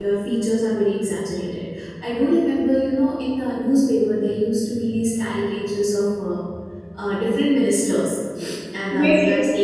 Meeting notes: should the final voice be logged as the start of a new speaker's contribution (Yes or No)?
No